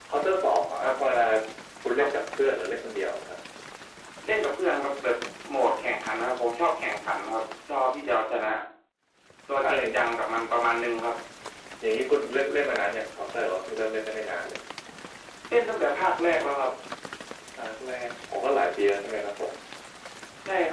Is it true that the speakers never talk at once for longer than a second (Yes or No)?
Yes